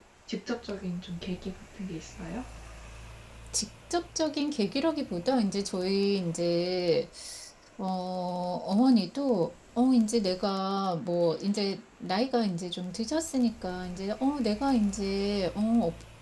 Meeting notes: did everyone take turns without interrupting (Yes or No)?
Yes